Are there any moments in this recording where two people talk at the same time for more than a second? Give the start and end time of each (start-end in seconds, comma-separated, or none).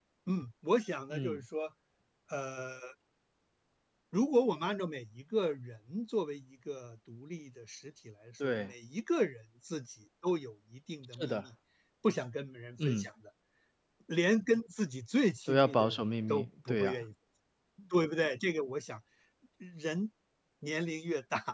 15.5-16.9